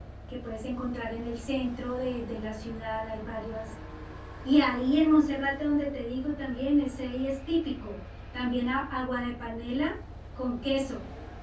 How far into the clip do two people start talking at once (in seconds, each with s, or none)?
none